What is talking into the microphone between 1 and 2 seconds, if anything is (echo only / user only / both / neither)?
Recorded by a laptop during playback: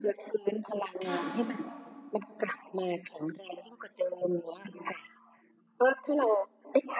both